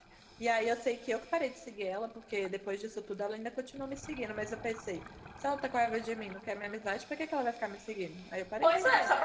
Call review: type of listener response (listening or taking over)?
taking over